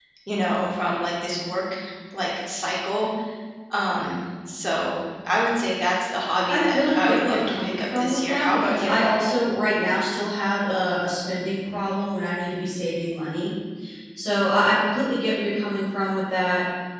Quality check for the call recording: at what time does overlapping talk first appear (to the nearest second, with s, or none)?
6 s